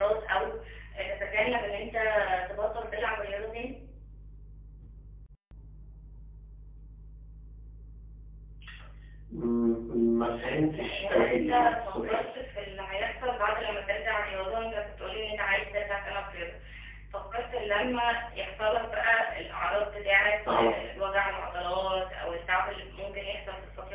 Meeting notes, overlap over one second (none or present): present